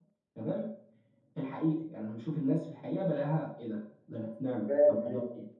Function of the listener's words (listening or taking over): listening